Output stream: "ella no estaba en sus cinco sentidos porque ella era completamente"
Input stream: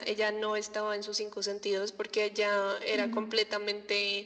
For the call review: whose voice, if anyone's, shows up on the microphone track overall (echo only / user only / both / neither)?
both